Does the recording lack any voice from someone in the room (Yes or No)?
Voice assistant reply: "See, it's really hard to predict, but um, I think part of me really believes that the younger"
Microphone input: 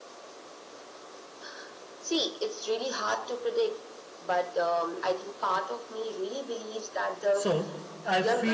No